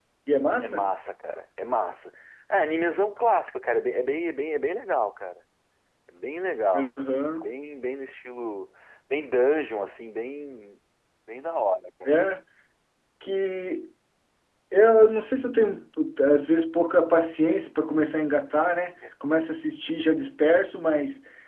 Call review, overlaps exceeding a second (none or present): none